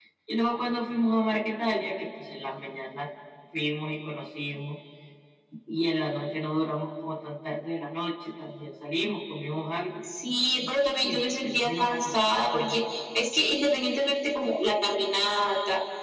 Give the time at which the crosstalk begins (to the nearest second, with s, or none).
11 s